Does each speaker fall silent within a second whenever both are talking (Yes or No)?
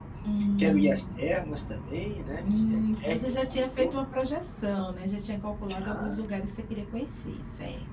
No